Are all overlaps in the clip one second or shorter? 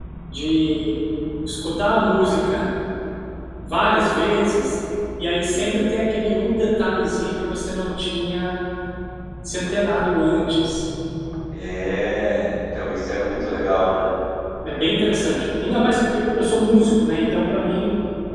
Yes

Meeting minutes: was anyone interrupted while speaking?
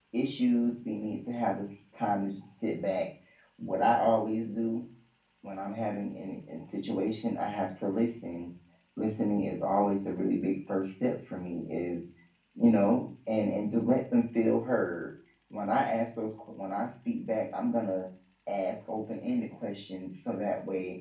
No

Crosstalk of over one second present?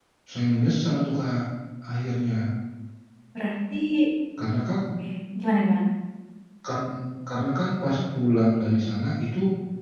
No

